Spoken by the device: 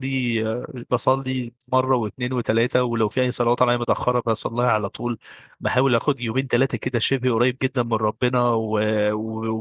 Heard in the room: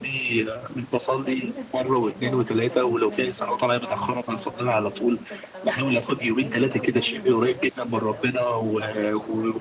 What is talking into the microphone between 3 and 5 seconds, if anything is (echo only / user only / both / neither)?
both